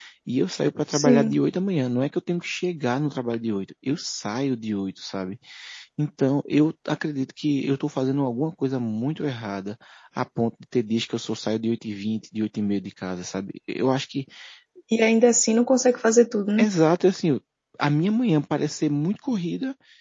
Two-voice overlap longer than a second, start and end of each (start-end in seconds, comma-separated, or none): none